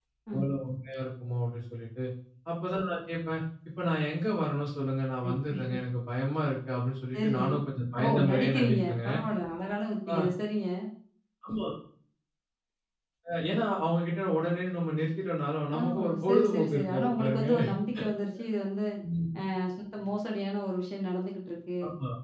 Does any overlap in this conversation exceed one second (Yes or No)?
Yes